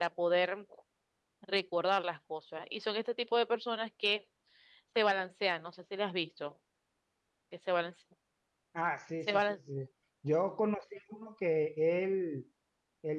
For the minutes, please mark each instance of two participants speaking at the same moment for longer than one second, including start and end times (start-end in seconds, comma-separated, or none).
none